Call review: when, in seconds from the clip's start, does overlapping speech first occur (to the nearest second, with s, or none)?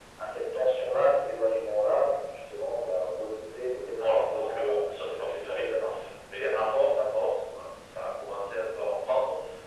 4 s